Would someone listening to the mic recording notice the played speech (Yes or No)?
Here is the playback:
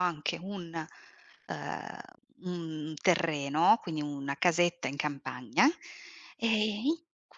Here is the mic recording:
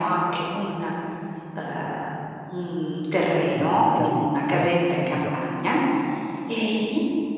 Yes